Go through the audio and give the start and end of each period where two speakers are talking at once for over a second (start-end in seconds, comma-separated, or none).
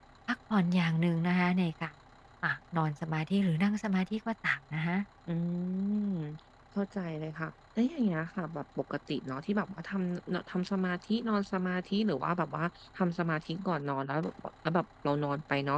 none